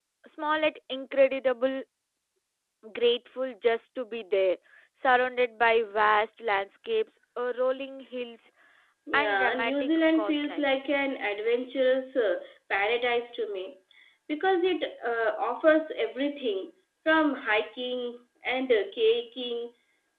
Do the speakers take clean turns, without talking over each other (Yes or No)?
No